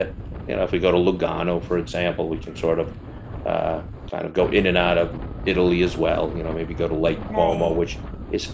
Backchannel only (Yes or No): Yes